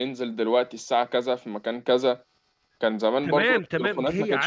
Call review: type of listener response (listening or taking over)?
taking over